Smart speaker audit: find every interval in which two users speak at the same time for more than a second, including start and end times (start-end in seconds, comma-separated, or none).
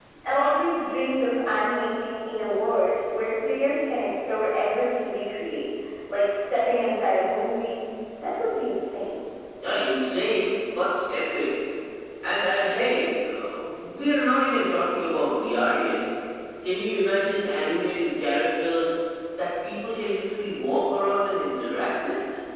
none